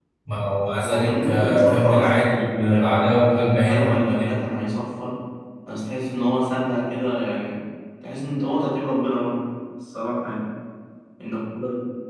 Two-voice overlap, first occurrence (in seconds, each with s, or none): 0.9 s